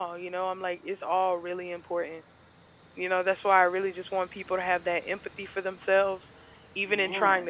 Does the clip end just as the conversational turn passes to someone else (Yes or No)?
No